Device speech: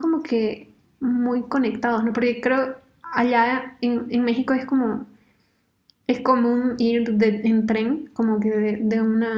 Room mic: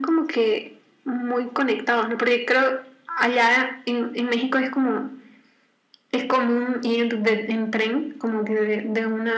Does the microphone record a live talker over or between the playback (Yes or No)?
No